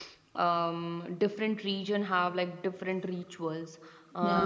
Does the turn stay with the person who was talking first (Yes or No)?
Yes